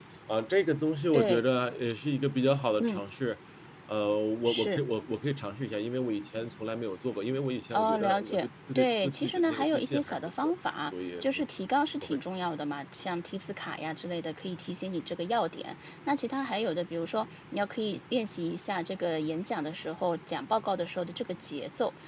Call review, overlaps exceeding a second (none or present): present